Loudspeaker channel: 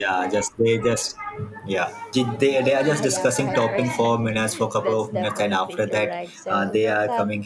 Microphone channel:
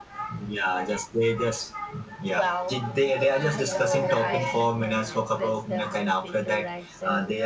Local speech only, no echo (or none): 12 so i oh no no i think